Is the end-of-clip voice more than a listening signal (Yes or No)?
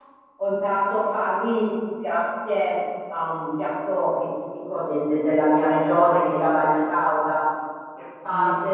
No